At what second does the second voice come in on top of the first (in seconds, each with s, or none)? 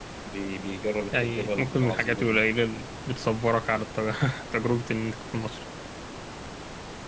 1.2 s